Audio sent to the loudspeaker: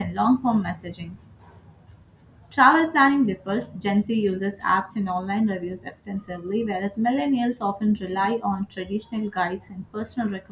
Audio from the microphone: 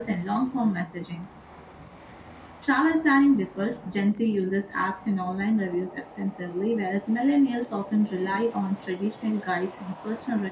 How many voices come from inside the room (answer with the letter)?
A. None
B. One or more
A